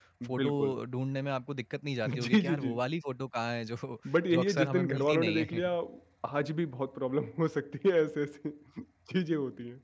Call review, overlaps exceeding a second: present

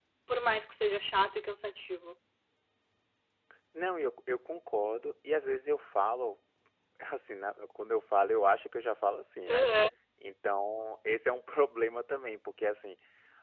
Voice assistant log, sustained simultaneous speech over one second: none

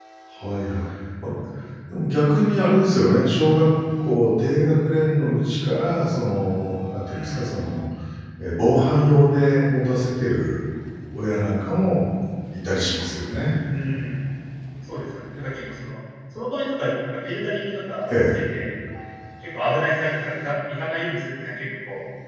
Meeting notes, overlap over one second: none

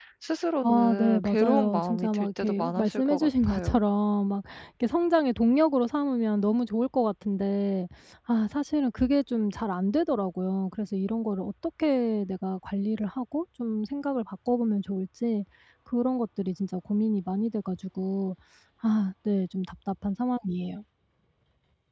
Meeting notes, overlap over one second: present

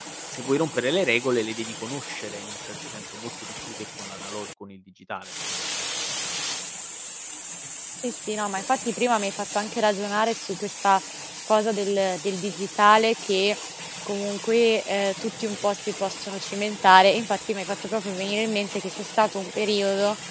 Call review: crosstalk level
none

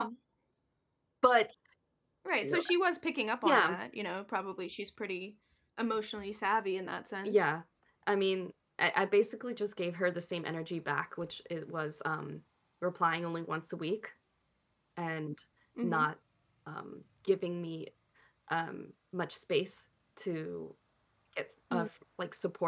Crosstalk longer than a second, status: none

